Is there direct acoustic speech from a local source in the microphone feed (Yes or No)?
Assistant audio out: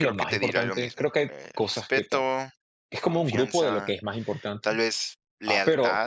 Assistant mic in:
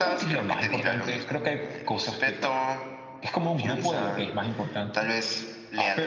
No